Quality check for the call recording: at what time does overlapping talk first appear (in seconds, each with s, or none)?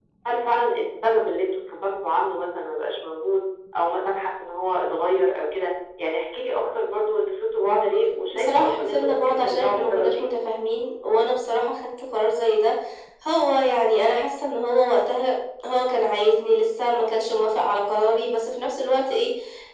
8.3 s